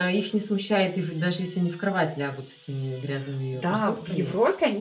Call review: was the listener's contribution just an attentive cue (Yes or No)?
No